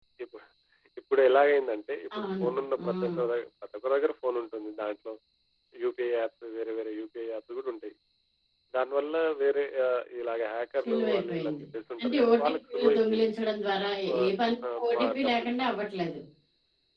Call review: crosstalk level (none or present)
present